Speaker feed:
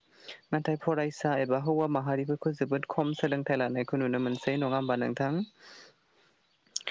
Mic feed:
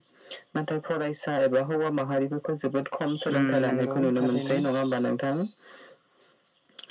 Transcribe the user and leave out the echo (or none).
उम नंगौ थारैनो